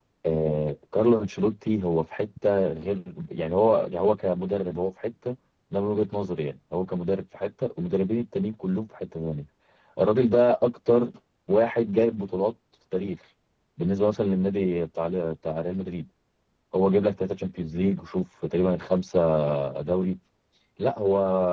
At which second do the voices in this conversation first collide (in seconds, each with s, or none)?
none